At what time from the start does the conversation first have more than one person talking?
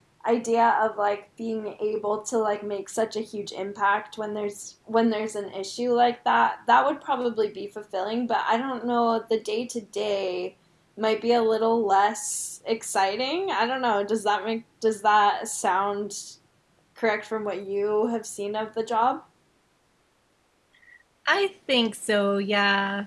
none

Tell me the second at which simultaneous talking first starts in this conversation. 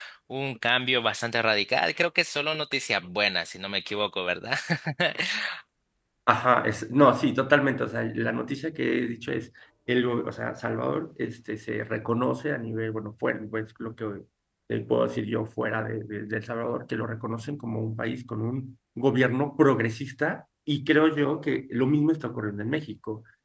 none

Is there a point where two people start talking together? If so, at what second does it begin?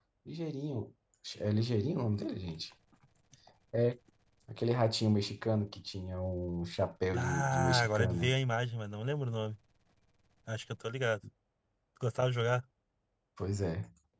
7 s

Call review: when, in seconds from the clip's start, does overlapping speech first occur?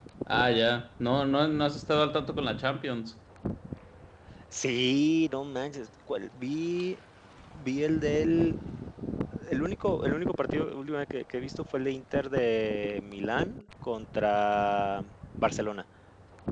none

